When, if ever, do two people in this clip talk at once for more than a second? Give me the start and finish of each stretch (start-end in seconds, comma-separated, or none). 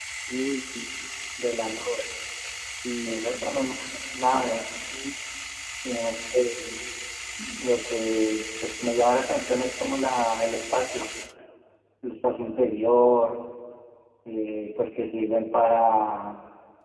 none